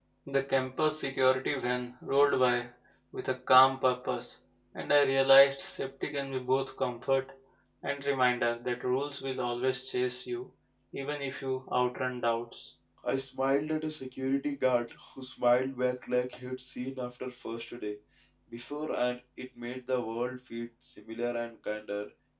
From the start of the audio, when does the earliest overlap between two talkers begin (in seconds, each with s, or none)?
none